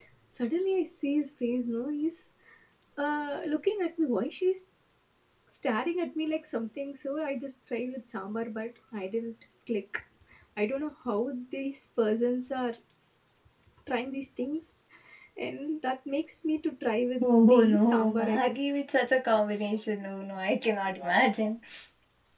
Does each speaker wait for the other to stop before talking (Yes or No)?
No